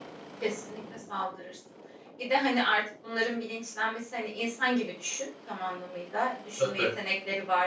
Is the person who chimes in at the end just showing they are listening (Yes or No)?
Yes